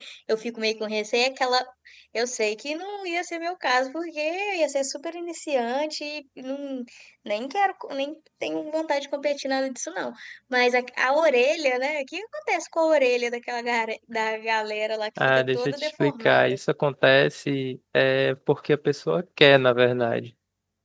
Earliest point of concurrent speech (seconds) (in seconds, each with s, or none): 15.2 s